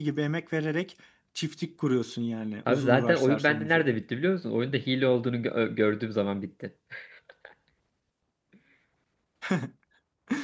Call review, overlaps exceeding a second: present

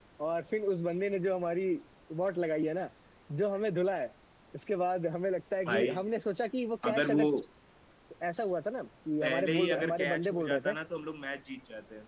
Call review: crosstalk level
present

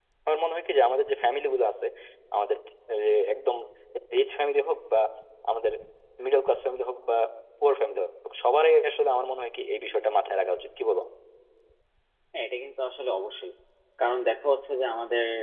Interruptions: none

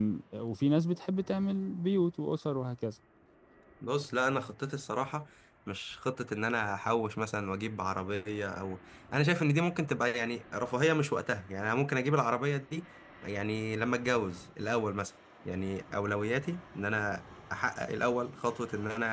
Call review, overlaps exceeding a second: none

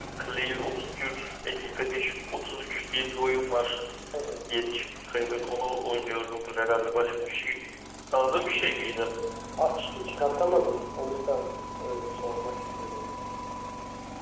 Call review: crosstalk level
none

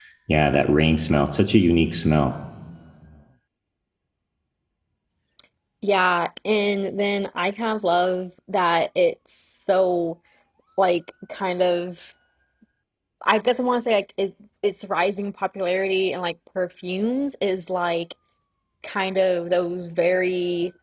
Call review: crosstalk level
none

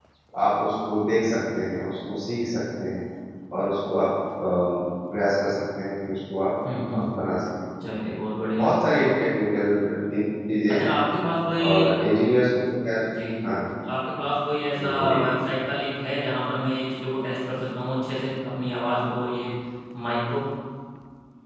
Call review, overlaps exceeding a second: none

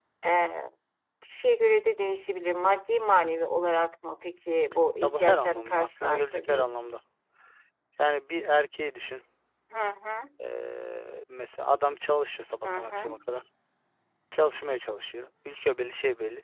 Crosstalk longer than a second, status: present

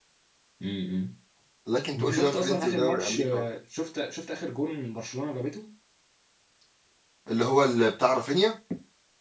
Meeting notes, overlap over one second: present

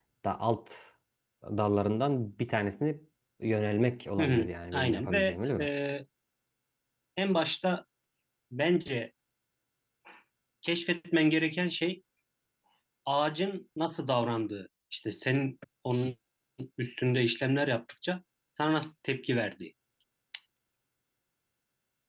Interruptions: present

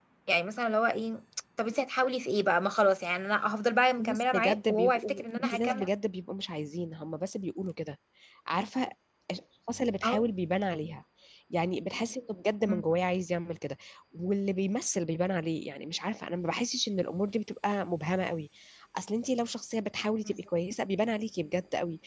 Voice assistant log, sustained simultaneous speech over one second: present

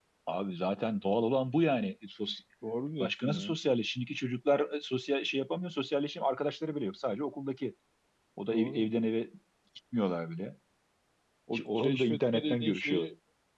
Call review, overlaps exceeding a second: present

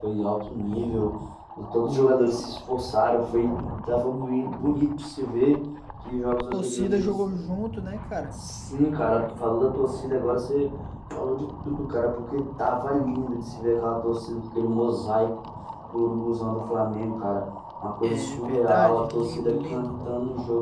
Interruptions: present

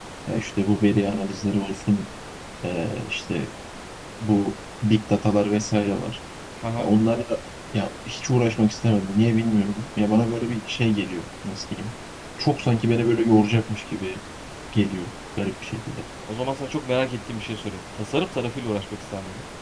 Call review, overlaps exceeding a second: none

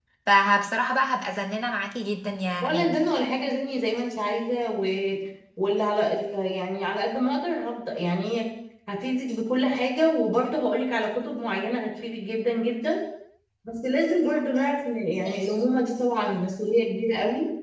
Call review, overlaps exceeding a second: none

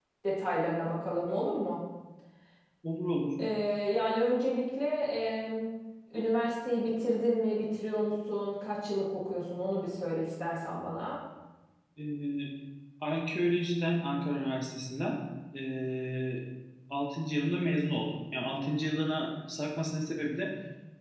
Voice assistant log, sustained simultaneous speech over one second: none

